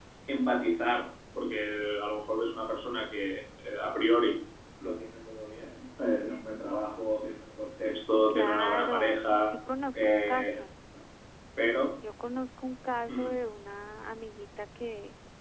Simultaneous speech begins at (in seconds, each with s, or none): 8.3 s